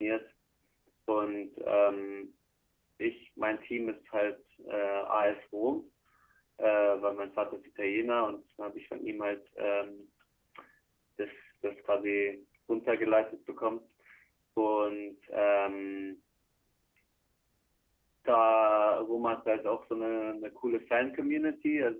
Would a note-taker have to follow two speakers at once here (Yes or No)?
No